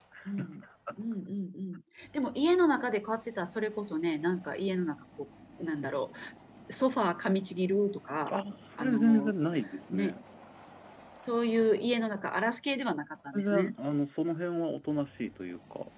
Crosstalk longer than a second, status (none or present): none